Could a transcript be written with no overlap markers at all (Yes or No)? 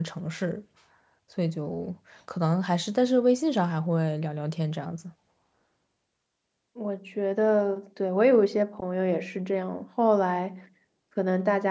Yes